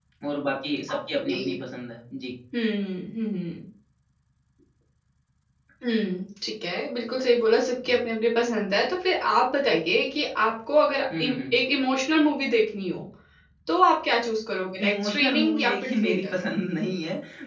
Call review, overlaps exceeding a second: present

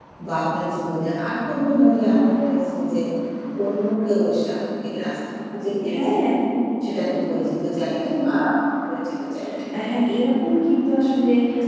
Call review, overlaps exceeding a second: none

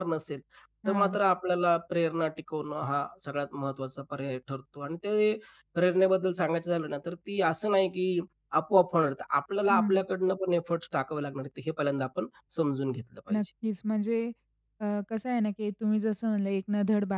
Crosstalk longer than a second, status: none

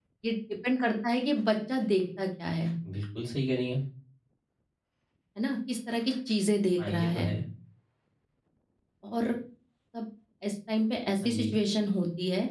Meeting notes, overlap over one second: none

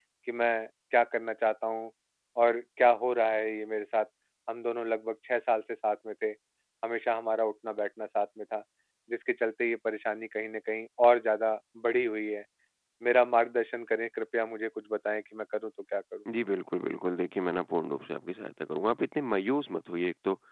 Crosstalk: none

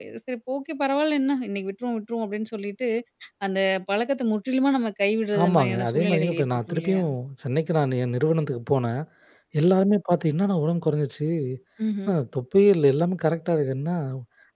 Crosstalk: present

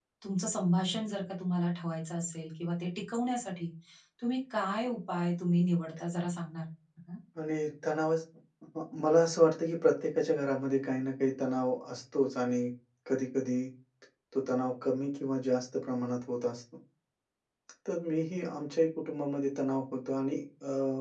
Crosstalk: none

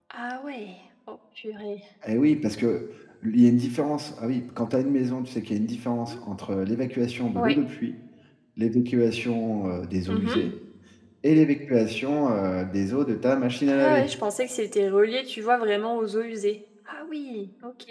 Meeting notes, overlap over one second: none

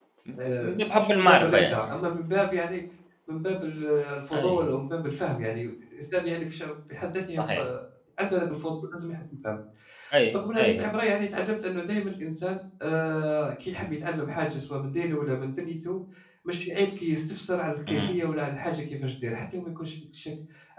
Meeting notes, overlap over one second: present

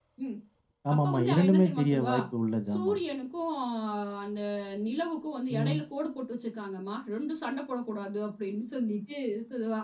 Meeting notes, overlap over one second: present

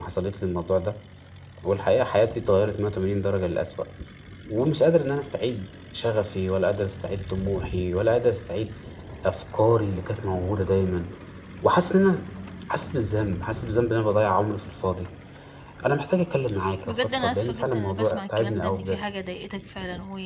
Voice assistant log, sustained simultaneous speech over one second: present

